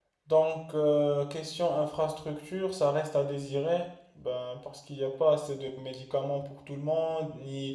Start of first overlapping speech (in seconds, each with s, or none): none